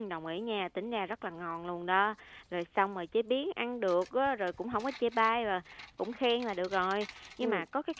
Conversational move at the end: listening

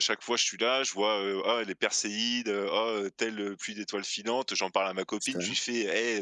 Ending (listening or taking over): listening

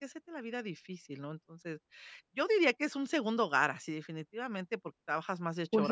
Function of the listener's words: taking over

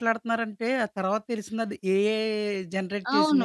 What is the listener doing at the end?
taking over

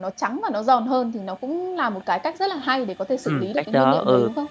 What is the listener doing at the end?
taking over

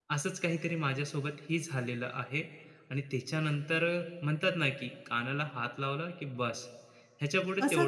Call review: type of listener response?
taking over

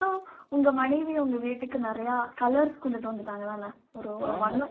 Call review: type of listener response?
taking over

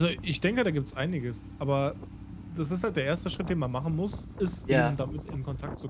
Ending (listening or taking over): listening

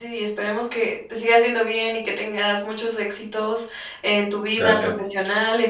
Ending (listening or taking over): listening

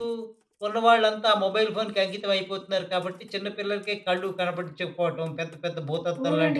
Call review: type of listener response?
taking over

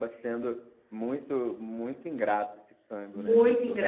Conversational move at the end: taking over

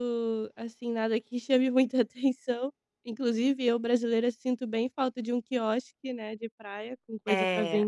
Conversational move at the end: taking over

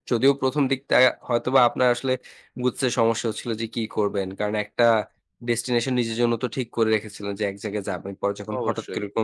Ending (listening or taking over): listening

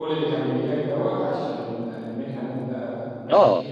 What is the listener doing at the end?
taking over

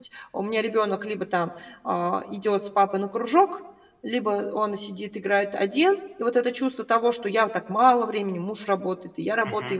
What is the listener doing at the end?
listening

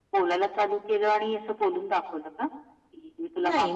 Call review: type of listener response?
taking over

